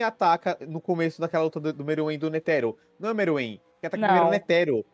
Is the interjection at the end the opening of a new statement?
No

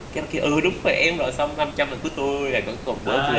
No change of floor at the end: No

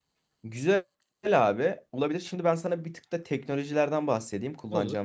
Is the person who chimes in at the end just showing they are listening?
Yes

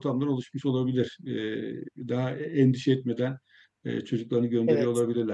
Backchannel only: Yes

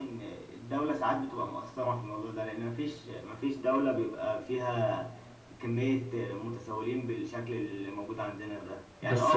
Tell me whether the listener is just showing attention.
Yes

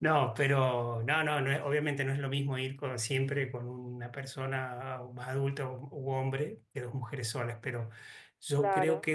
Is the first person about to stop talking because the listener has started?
No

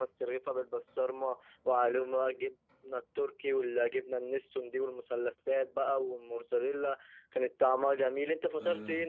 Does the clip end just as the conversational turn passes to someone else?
Yes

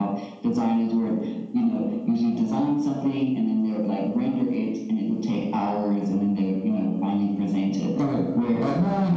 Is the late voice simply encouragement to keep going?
No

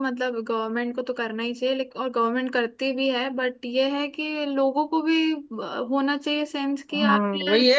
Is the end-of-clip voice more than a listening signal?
Yes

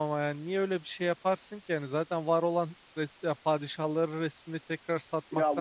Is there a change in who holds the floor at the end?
Yes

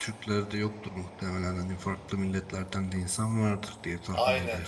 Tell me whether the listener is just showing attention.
No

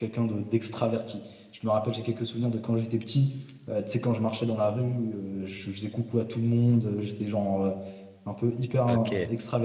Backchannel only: Yes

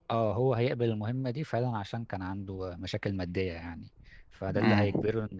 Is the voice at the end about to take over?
No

